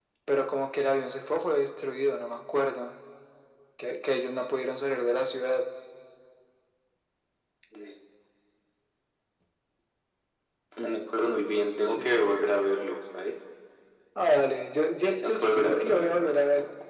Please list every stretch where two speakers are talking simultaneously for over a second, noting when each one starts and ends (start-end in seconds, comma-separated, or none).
15.0-16.3